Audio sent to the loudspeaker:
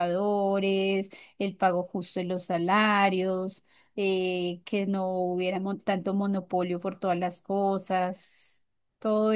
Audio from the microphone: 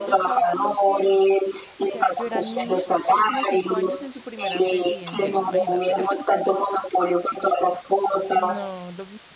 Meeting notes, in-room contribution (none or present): present